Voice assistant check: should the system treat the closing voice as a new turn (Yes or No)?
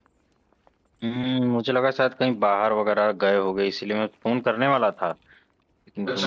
No